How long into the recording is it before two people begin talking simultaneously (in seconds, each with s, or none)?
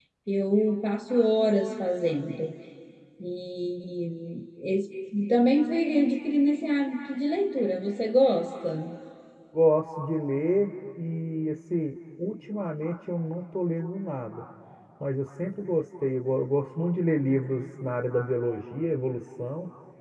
none